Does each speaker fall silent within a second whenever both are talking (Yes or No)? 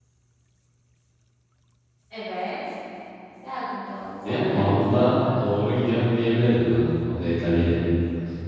No